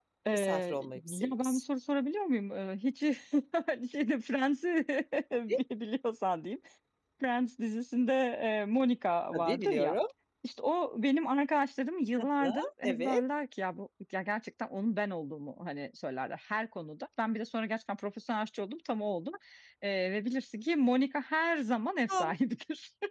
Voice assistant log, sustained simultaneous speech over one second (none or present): present